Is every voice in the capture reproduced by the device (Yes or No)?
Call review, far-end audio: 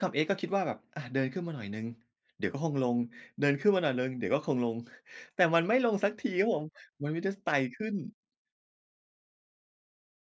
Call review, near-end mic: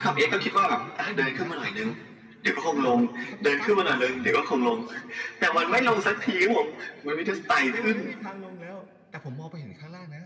No